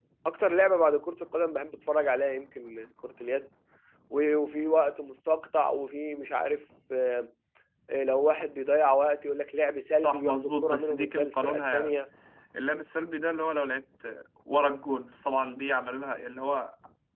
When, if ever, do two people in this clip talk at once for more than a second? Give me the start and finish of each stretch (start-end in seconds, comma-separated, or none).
9.9-11.9